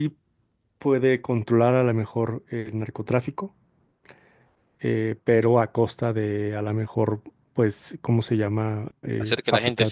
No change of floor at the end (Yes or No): No